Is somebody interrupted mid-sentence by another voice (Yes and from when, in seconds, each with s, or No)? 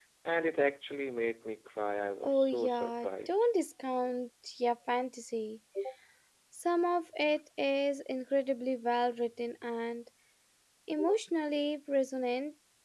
Yes, from 2.2 s